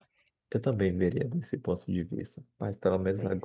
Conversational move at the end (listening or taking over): listening